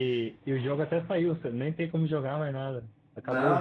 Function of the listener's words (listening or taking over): taking over